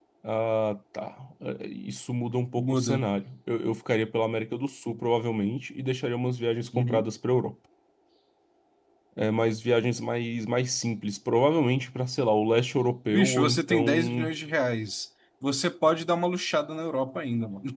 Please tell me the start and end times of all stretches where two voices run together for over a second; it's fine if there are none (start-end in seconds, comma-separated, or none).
13.1-14.3